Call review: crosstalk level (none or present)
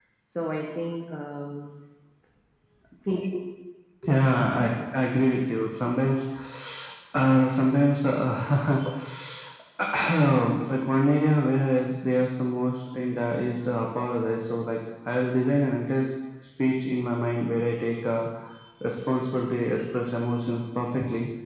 none